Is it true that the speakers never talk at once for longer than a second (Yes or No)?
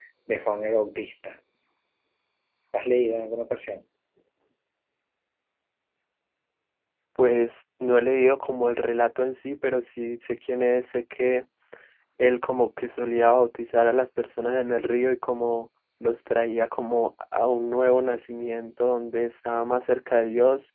Yes